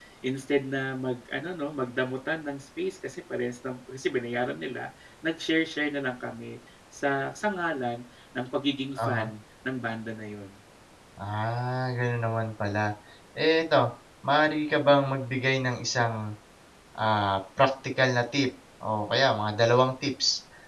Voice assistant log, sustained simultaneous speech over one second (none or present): none